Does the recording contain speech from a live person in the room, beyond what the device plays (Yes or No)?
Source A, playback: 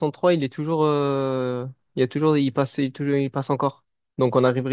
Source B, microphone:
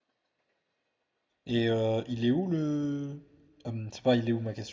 Yes